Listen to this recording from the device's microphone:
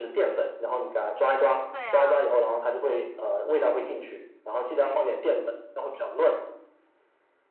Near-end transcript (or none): 对啊，